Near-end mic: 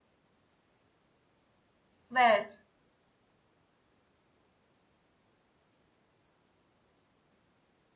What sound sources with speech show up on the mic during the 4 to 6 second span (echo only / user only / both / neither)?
neither